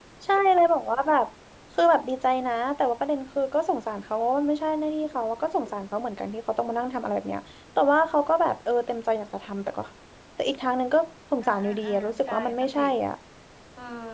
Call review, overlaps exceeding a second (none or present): present